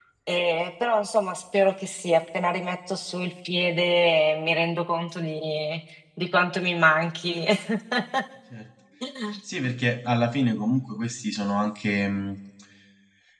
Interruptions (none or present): none